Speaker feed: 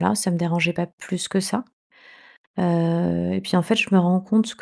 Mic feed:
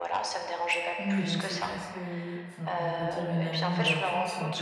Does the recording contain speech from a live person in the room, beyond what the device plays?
Yes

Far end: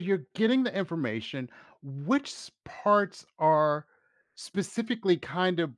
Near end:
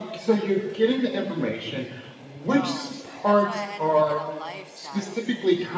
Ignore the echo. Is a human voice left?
Yes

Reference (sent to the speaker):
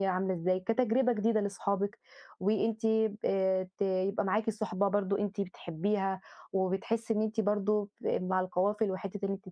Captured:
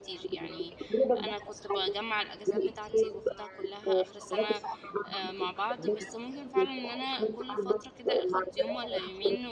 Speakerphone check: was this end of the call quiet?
No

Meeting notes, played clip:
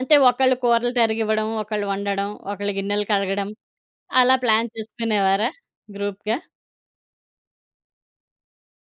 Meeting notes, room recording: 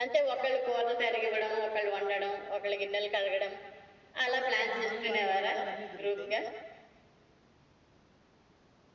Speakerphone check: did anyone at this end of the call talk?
Yes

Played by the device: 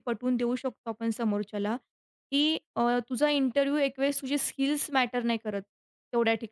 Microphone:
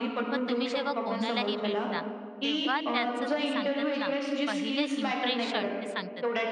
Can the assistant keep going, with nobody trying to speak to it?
No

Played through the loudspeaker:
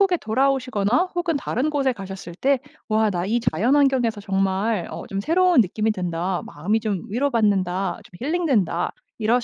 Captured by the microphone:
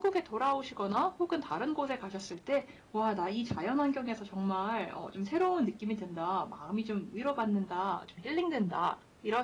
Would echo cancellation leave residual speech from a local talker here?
No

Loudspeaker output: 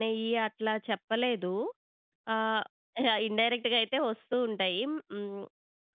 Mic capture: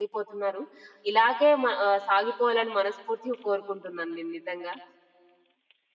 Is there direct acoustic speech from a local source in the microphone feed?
Yes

